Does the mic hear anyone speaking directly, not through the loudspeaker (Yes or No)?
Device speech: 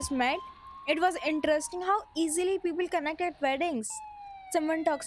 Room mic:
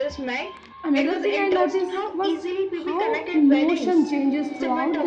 Yes